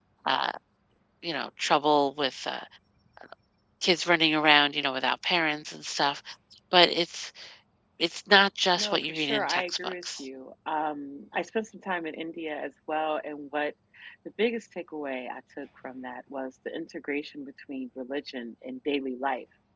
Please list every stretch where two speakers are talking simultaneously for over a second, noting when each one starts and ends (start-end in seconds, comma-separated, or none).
8.8-10.2